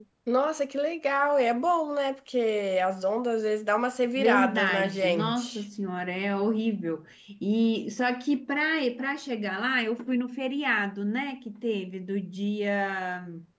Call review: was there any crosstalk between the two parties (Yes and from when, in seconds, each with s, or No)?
Yes, from 4.2 s